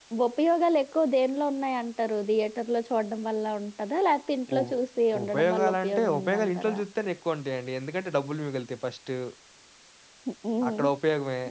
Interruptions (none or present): present